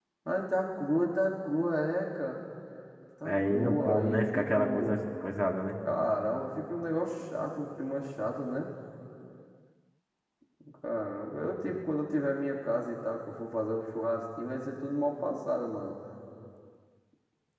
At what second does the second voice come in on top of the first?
3.2 s

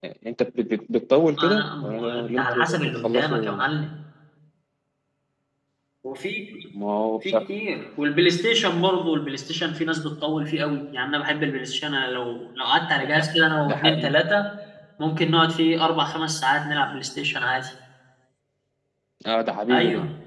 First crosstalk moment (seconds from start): 1.4 s

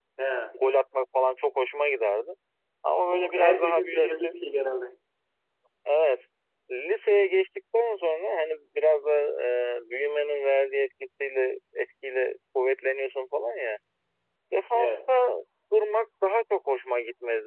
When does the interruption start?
3.1 s

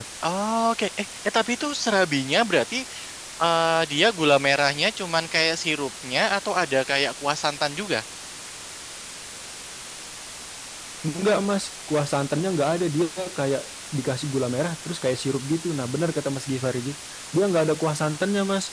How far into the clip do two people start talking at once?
none

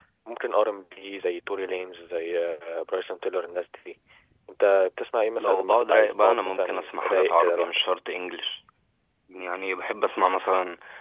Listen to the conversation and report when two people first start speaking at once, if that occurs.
5.4 s

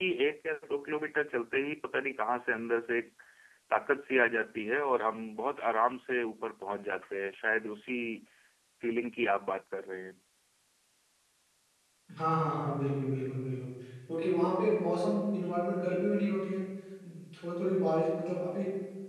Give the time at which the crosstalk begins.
none

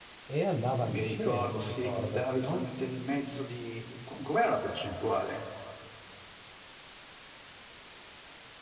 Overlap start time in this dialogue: 0.9 s

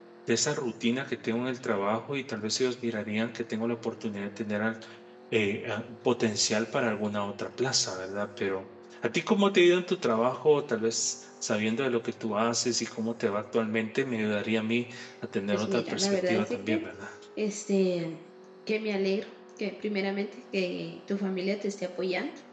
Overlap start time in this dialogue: 15.5 s

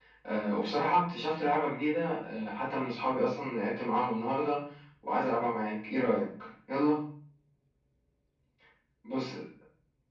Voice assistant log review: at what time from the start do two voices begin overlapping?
none

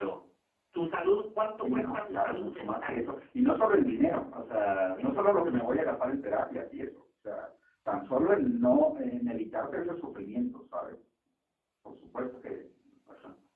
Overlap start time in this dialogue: 1.6 s

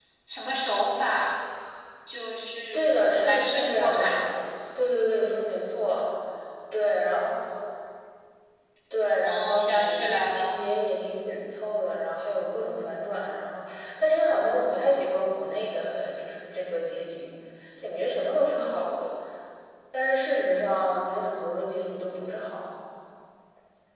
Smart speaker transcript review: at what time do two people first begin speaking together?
2.7 s

